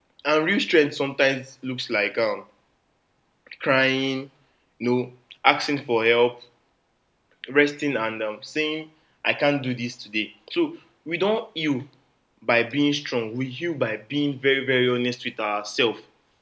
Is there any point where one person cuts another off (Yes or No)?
No